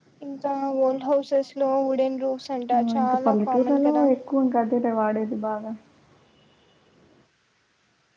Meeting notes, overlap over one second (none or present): present